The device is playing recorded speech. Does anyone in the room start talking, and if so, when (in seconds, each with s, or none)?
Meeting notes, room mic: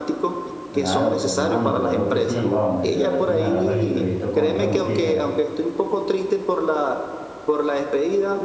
0.7 s